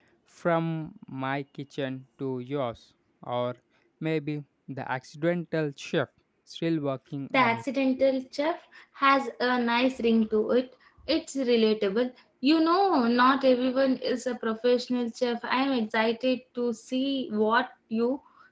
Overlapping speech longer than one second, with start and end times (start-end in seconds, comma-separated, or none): none